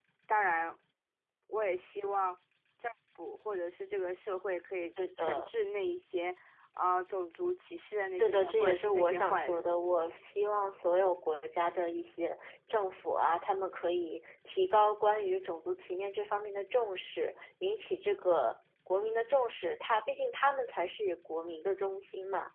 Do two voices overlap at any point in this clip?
Yes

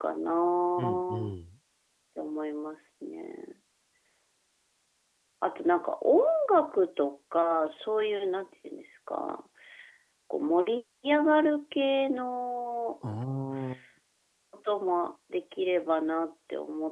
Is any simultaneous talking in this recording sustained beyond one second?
No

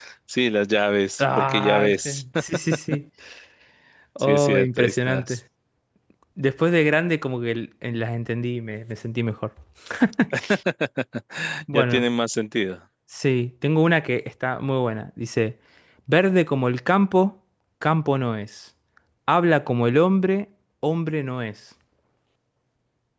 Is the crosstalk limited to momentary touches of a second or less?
No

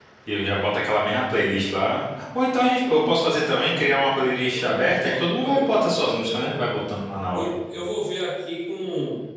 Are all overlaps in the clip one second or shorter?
No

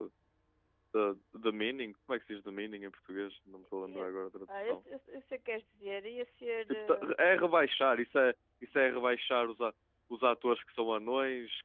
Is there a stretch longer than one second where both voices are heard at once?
No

